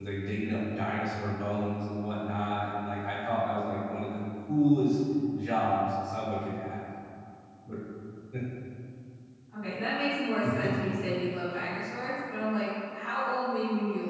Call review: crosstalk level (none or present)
none